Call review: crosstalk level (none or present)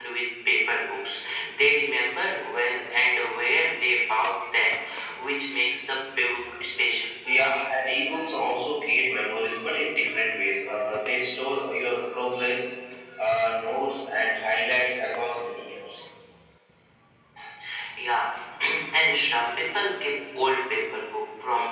none